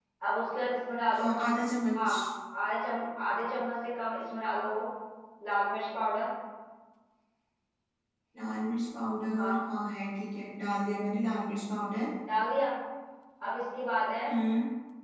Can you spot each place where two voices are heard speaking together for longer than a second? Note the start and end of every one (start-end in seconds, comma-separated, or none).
none